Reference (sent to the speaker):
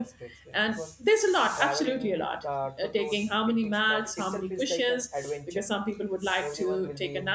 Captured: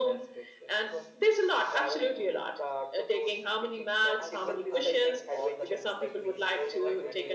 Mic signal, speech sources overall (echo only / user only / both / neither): both